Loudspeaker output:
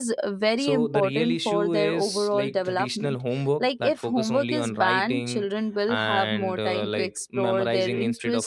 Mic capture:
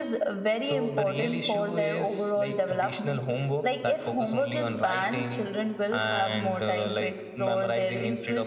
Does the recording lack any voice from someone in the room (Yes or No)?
Yes